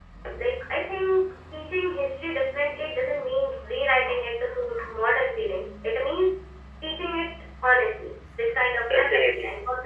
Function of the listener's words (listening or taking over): listening